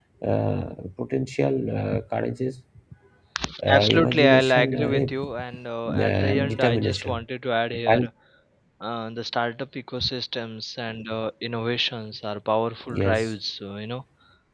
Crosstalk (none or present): present